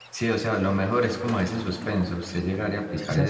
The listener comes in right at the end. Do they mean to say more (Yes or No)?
No